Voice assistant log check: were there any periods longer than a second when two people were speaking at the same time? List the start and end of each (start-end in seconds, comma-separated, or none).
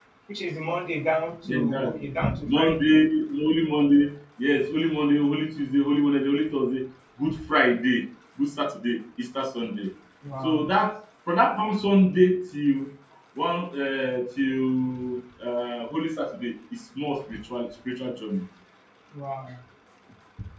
none